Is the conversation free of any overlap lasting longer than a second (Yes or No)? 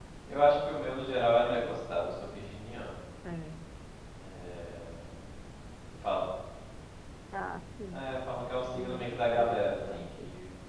No